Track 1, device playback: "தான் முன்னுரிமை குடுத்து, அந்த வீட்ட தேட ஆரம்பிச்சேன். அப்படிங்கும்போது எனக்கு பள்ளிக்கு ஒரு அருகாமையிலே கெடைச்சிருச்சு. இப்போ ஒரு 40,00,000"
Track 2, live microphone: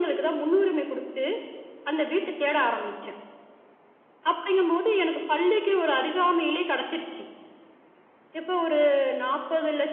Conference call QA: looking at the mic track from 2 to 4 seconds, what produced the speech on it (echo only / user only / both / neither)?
echo only